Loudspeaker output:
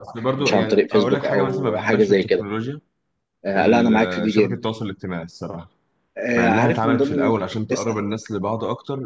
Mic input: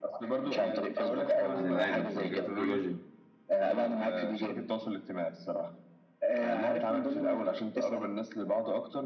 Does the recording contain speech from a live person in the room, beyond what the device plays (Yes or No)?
Yes